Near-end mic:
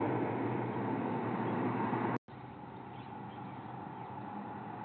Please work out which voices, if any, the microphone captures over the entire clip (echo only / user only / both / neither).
neither